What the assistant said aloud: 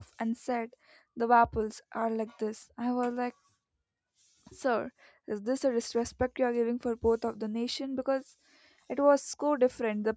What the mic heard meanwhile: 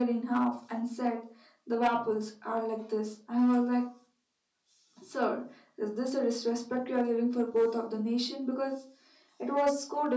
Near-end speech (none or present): none